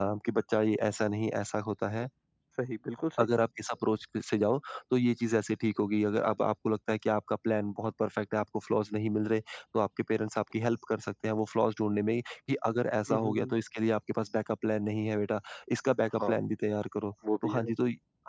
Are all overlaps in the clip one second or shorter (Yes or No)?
Yes